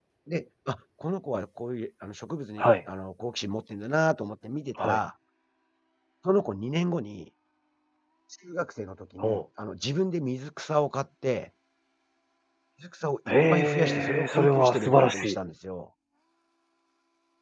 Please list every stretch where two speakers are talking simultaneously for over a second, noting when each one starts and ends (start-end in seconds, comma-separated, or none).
13.5-15.3